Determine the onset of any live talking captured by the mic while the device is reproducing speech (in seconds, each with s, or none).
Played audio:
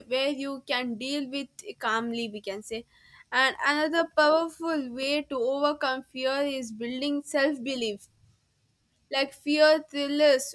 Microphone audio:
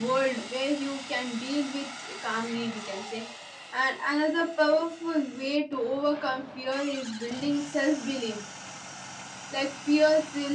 none